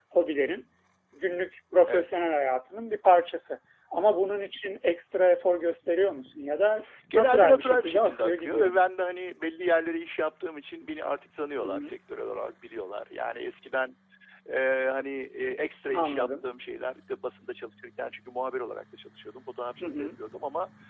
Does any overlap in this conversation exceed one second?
Yes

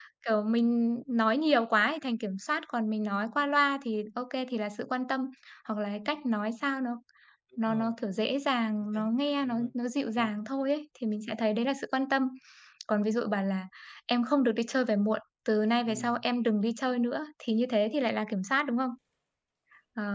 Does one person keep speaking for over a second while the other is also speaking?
No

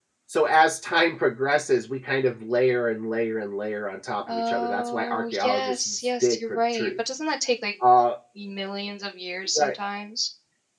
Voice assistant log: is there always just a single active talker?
No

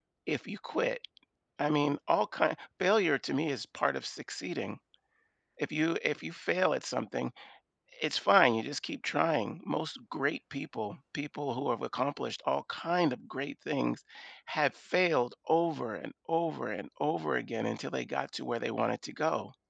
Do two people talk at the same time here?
No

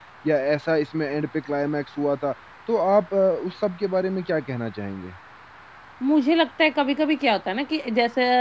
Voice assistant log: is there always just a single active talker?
Yes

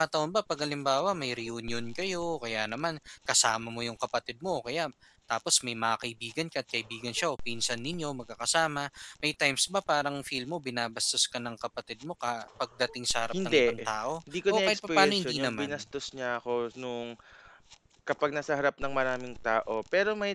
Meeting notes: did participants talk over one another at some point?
Yes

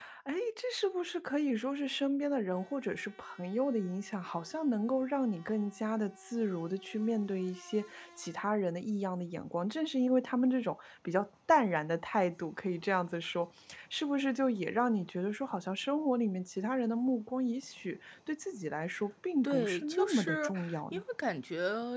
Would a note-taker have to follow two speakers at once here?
Yes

